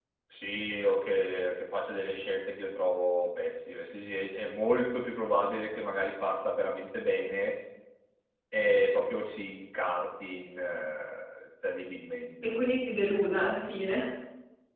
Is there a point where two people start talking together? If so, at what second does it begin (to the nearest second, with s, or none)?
none